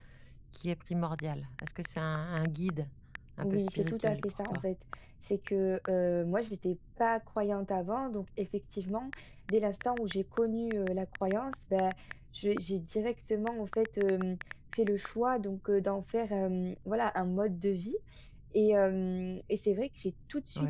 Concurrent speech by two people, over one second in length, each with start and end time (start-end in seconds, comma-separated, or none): 3.4-4.7